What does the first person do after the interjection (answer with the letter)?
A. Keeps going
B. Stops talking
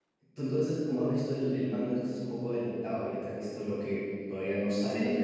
B